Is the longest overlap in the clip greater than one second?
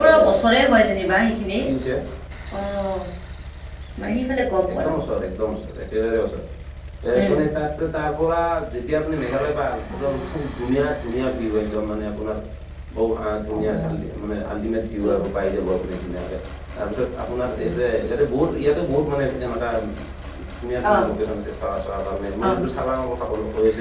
No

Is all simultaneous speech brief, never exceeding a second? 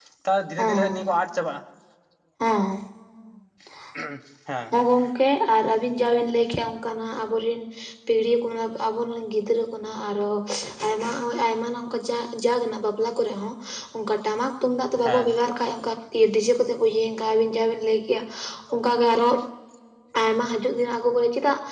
Yes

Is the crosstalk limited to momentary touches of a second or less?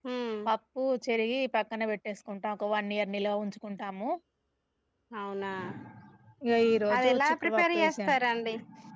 No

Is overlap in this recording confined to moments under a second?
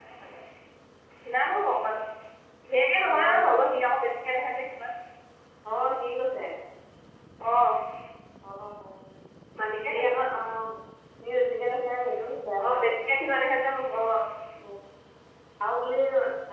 Yes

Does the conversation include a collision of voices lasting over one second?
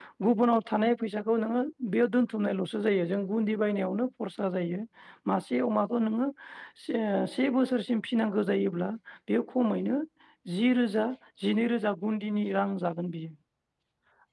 No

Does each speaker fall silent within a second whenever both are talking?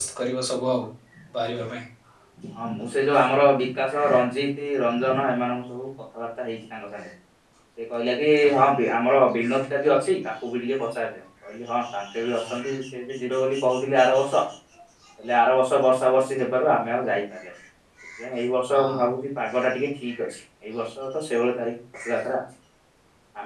Yes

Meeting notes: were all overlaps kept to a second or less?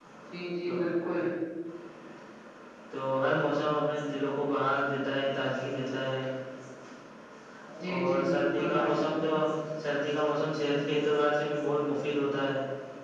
No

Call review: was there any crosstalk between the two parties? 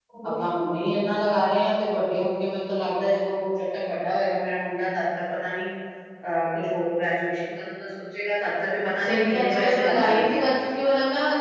Yes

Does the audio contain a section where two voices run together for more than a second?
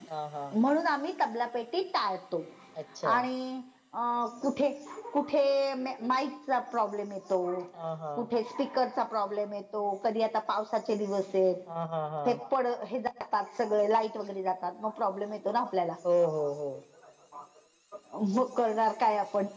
No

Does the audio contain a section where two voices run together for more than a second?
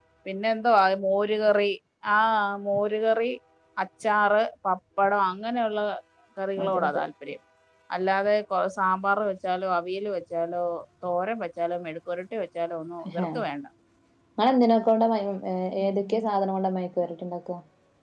No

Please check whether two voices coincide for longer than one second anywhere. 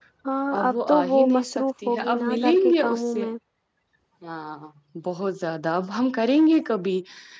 Yes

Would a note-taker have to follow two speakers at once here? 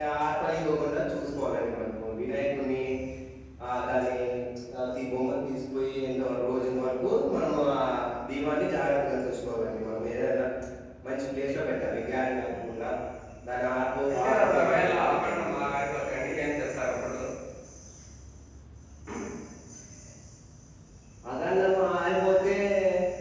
Yes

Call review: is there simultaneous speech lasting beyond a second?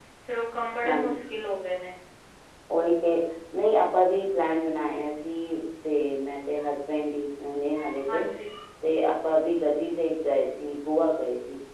No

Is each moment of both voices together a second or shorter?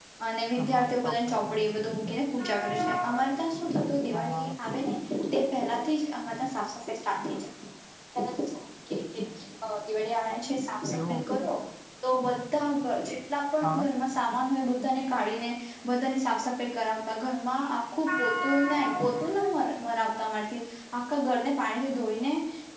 No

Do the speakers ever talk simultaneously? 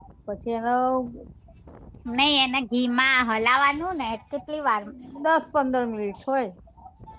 No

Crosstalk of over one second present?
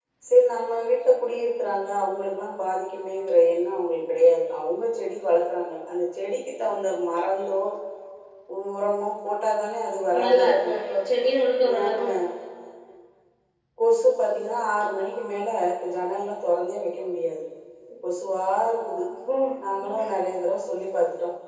No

